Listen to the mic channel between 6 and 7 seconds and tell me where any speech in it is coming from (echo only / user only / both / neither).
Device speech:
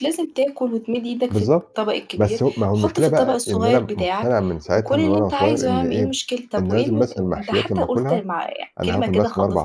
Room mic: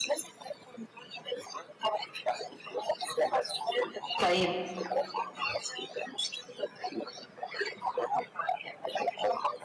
echo only